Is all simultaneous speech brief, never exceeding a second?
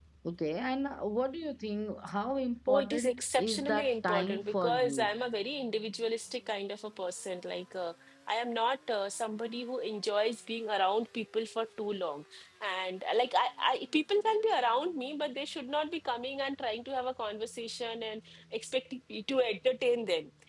No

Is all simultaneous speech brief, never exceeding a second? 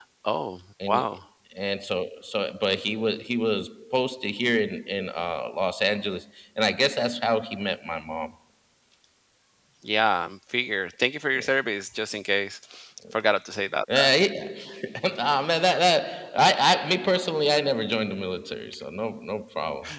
Yes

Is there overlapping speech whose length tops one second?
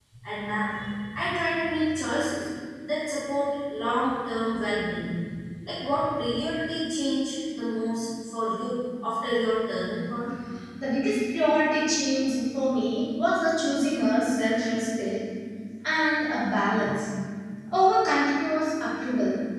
No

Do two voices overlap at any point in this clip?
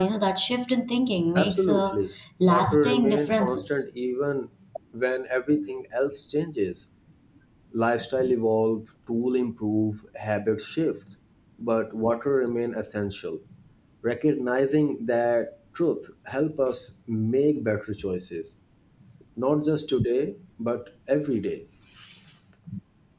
Yes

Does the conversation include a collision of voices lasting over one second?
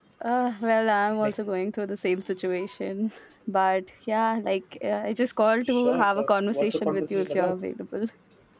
Yes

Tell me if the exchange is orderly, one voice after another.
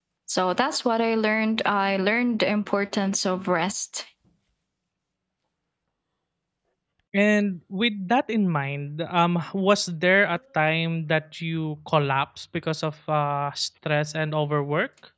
Yes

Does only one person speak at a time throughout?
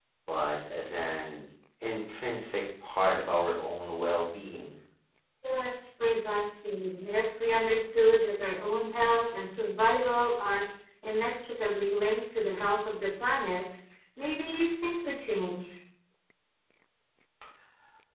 Yes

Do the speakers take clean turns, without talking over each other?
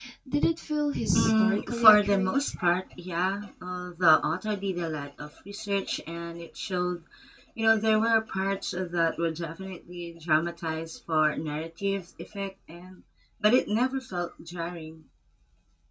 No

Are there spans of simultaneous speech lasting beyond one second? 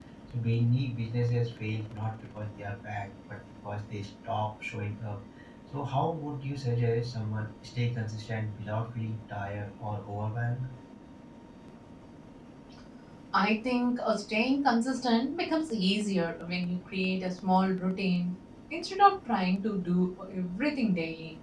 No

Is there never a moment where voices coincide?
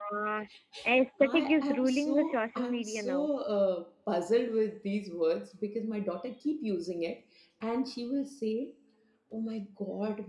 No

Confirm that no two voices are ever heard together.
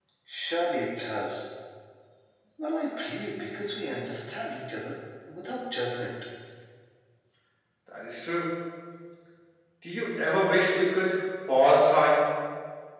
Yes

